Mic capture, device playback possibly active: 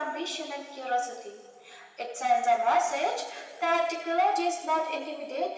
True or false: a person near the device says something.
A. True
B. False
B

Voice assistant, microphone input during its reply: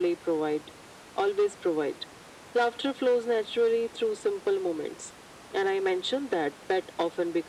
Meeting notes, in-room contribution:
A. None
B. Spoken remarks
A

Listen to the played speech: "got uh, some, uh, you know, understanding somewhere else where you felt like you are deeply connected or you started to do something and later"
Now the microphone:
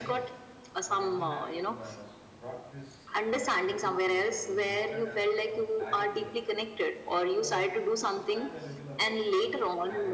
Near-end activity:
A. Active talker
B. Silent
A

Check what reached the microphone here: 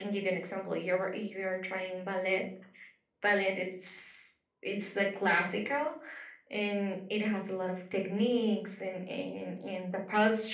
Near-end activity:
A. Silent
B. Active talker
A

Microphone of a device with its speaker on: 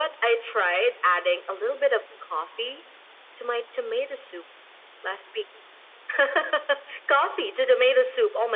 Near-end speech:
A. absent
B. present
A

